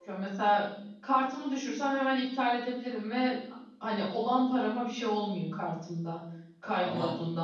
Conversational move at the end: listening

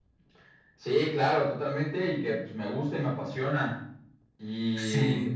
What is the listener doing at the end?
listening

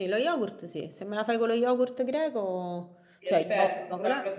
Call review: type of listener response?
taking over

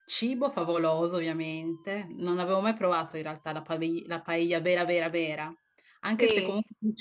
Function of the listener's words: listening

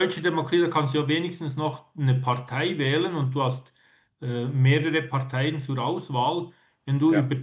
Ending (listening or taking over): listening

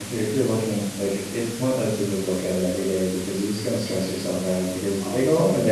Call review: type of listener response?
listening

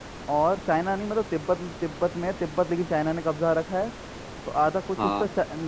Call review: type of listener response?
listening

